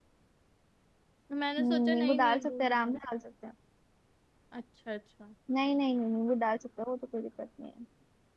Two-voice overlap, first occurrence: 1.6 s

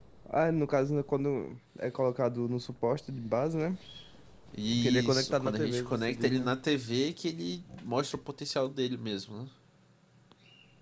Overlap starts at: 4.8 s

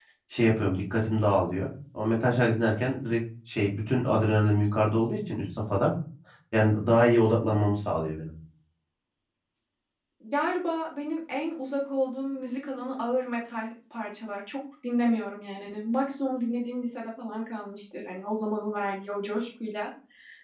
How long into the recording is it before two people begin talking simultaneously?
none

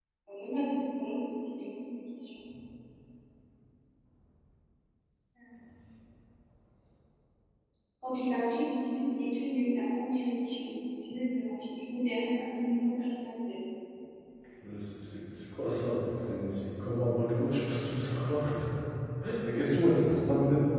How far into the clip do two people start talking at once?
none

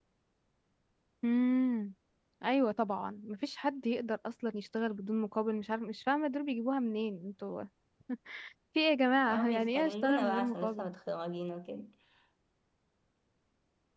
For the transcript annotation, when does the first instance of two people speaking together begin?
9.3 s

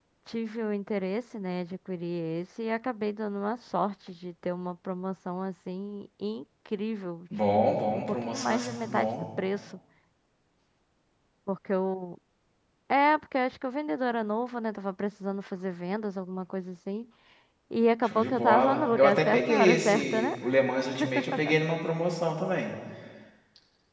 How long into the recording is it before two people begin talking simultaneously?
7.6 s

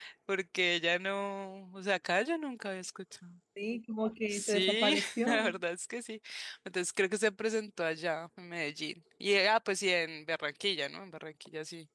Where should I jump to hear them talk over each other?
4.3 s

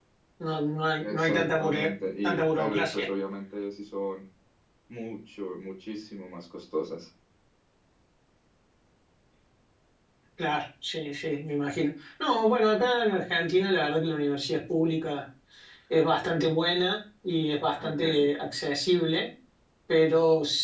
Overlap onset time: 1.0 s

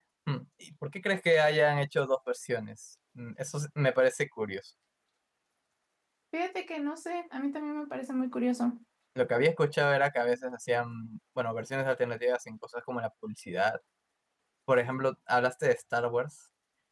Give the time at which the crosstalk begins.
none

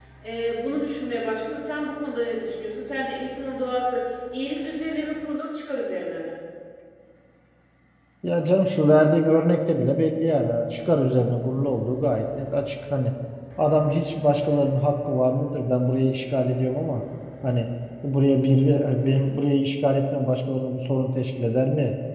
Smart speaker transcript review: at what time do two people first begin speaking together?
none

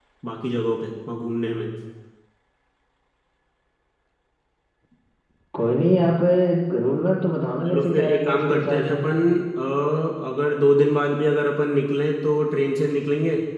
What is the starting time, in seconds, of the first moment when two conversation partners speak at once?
7.6 s

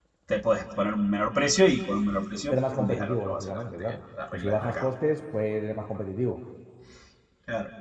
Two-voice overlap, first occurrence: 2.5 s

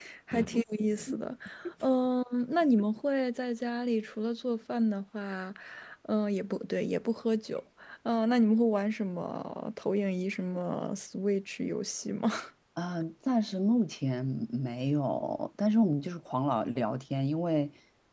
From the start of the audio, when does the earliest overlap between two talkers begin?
none

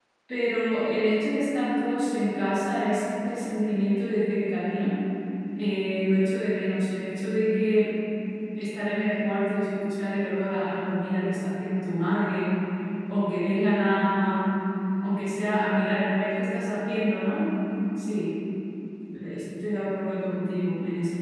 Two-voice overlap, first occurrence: none

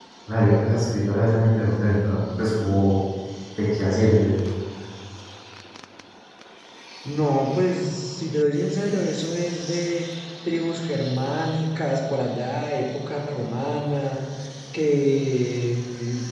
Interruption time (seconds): none

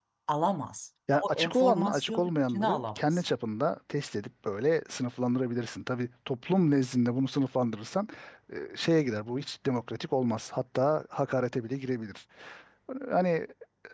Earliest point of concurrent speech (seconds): 1.2 s

